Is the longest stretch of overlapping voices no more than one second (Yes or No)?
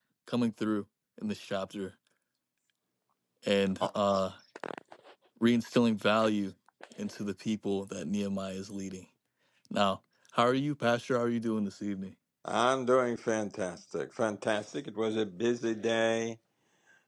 Yes